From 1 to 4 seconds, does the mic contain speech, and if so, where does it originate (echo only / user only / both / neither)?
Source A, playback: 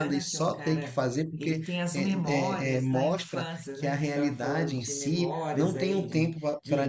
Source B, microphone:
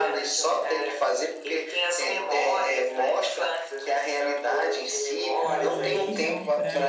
echo only